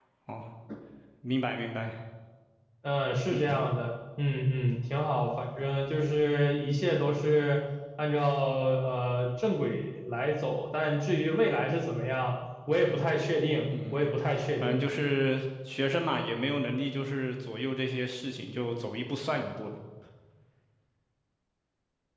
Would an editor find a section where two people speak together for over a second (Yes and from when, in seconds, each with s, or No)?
No